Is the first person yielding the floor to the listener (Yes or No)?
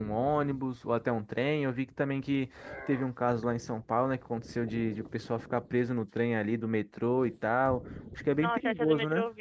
Yes